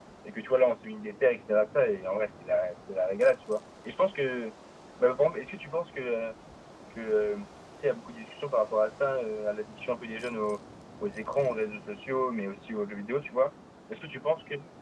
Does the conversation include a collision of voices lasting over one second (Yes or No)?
No